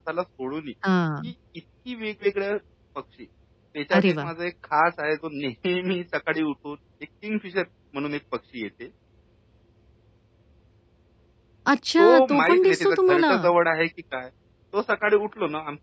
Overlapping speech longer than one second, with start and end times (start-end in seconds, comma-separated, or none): 12.0-13.3